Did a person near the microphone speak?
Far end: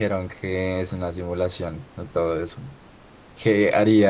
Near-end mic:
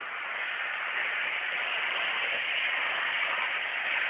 No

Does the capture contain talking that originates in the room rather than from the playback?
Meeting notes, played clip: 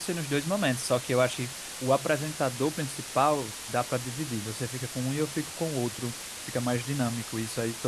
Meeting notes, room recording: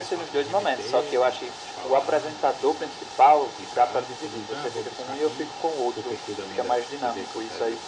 Yes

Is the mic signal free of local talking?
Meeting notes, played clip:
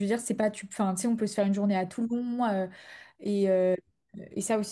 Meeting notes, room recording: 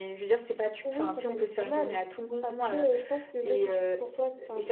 No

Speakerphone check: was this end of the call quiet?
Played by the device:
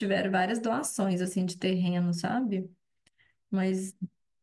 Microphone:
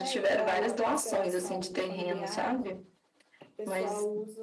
No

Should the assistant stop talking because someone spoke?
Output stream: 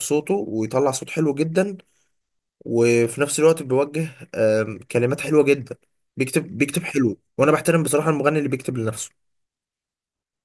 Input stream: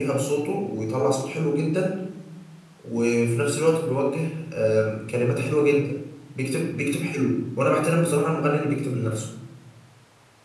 No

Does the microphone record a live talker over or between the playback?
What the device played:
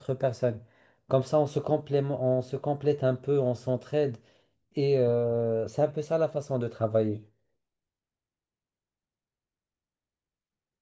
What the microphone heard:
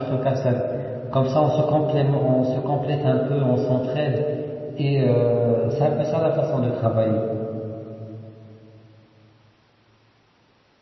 No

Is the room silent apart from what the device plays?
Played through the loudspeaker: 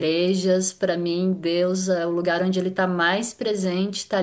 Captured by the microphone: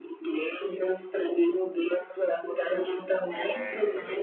No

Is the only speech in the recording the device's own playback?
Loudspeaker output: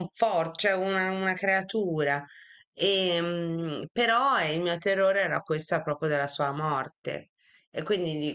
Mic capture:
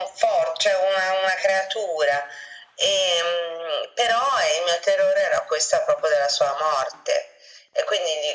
Yes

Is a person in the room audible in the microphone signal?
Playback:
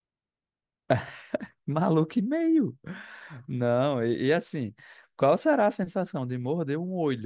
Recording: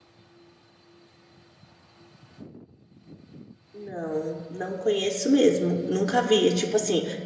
Yes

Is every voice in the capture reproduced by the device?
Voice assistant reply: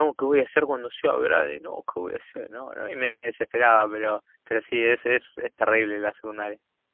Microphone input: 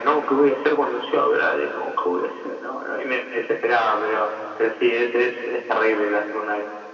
Yes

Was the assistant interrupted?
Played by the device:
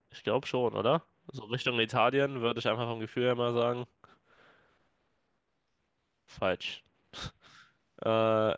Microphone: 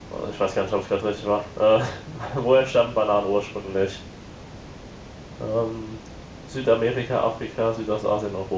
Yes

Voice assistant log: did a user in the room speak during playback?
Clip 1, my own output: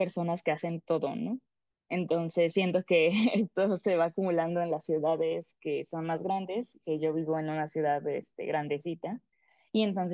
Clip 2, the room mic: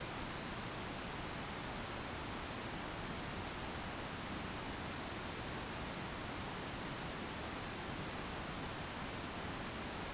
No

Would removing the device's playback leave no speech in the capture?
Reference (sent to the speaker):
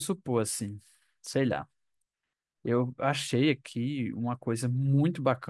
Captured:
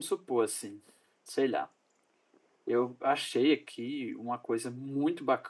Yes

